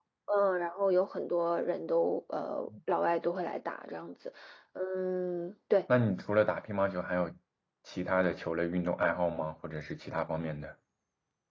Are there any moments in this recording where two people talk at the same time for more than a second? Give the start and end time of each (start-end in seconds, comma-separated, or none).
none